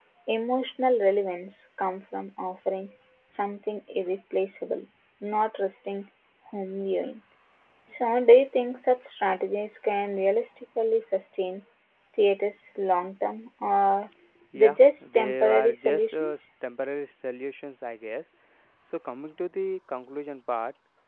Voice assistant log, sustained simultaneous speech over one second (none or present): present